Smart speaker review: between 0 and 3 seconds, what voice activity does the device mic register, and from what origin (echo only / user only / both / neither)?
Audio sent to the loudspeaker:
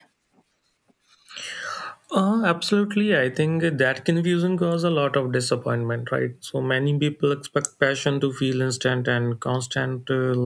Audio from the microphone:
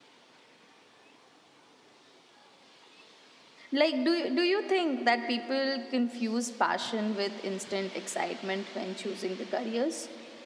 neither